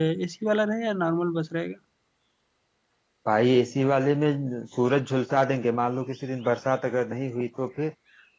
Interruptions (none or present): none